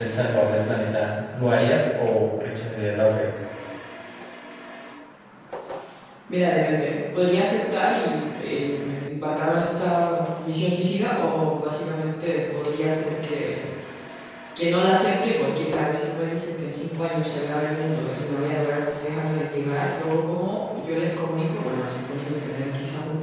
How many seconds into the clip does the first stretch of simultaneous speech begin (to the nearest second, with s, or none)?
none